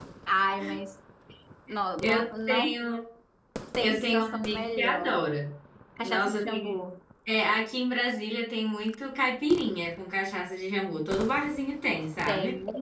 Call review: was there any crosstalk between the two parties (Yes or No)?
Yes